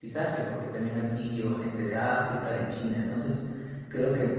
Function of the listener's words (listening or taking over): listening